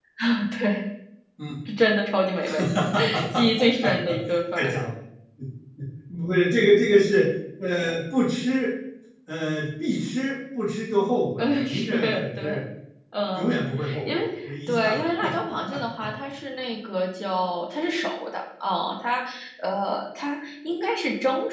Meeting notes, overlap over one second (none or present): present